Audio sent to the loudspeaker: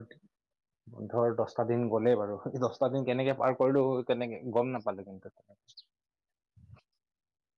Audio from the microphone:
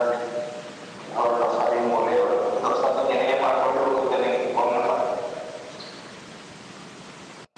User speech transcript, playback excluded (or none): none